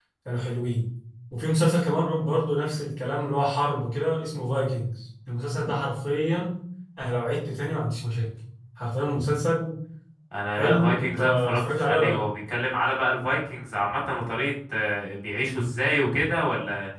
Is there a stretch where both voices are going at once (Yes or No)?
Yes